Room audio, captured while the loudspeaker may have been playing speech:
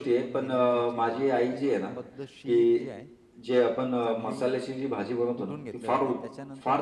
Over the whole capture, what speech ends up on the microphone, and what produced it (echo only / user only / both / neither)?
both